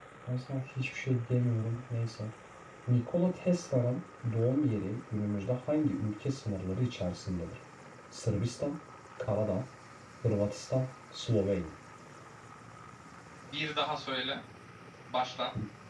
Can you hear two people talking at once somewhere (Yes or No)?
No